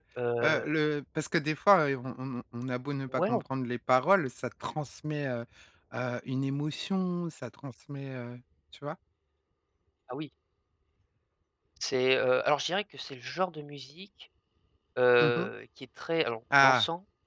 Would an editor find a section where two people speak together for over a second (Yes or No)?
No